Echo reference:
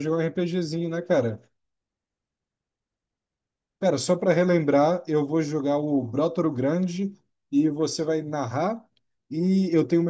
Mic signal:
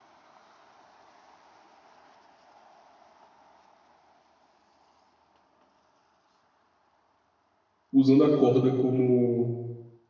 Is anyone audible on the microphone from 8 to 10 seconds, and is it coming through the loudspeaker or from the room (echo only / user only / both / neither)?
user only